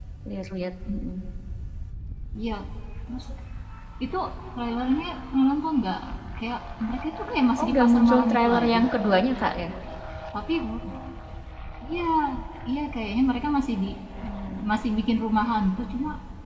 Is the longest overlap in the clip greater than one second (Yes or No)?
Yes